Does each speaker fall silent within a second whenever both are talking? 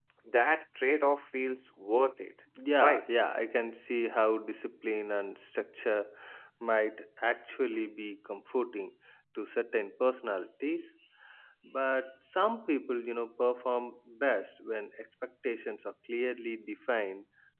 Yes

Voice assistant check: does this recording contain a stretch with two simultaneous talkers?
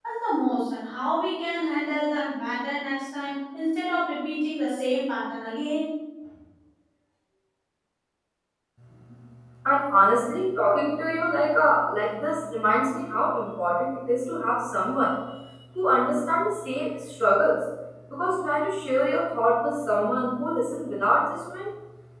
No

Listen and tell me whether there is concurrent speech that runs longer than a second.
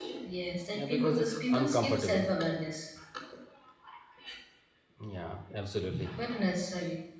Yes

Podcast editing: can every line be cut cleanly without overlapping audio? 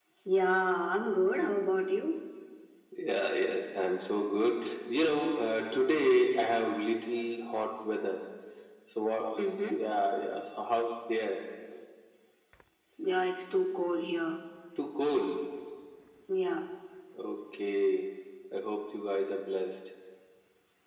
Yes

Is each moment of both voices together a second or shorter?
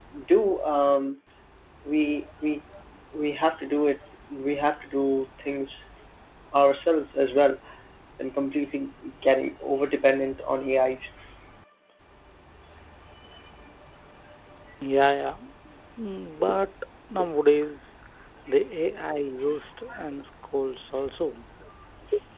Yes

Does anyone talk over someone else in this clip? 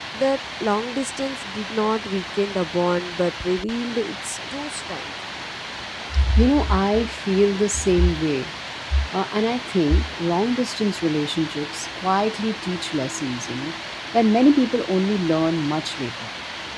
No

